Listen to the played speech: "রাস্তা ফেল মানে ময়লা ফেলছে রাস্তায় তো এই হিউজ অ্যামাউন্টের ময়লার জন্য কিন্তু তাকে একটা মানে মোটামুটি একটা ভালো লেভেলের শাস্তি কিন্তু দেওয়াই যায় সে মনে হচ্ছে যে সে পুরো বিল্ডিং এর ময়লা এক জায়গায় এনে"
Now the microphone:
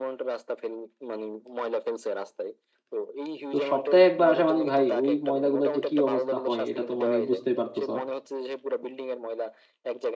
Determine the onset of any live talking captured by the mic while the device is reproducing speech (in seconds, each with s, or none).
3.5 s